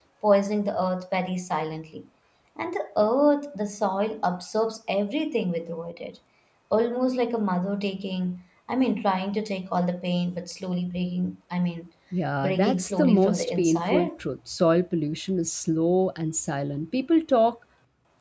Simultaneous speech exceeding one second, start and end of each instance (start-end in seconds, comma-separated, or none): 12.4-14.1